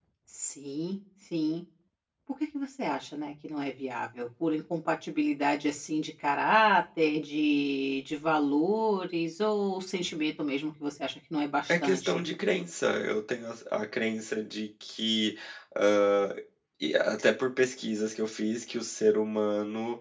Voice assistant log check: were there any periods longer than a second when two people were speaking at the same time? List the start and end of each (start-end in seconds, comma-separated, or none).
none